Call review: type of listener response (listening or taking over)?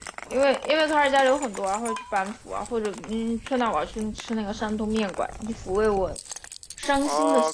taking over